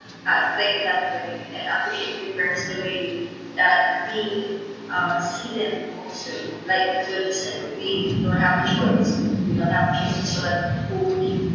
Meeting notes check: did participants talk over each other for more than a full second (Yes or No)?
No